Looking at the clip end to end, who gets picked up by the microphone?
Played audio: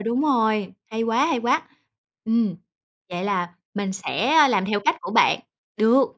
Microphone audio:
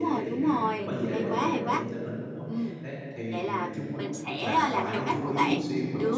both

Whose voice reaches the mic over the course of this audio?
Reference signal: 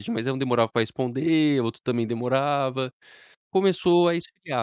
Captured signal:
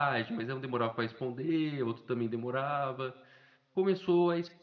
echo only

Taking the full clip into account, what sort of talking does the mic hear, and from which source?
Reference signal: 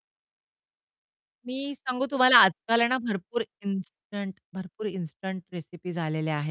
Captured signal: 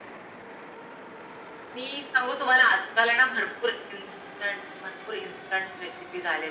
echo only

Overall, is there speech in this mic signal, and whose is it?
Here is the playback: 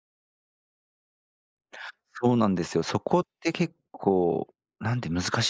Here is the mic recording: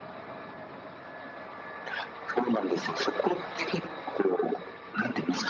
echo only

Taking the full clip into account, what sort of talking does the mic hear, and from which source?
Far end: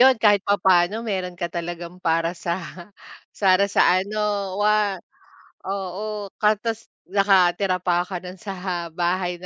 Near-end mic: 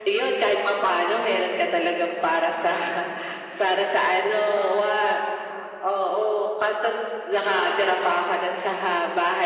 echo only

